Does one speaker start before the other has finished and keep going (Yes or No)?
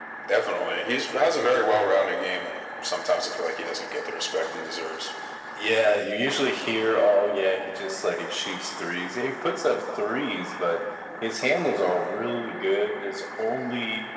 No